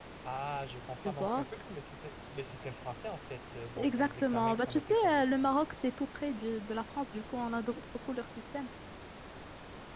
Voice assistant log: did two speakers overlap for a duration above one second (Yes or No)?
Yes